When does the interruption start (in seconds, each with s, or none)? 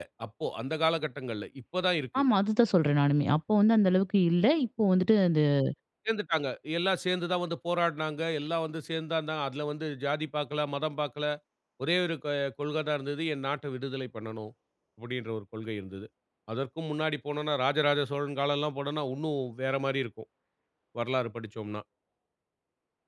none